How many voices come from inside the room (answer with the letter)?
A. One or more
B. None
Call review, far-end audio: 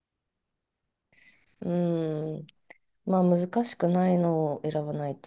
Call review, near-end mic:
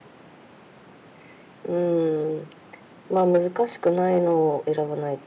B